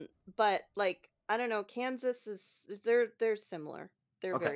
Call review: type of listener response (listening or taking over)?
taking over